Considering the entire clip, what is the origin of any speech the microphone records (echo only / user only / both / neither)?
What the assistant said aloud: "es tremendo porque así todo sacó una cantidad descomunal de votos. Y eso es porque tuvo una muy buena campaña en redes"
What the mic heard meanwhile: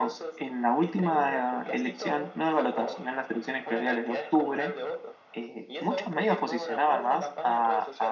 both